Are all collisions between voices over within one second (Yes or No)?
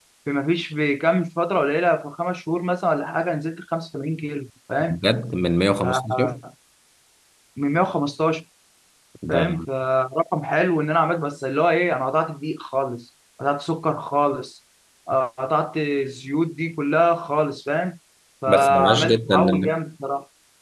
No